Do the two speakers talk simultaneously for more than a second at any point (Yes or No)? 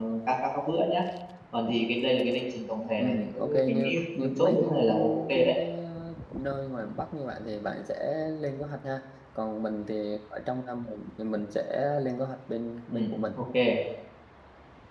Yes